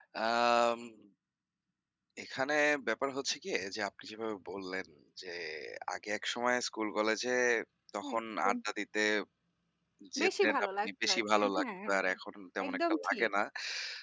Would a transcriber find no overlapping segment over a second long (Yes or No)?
No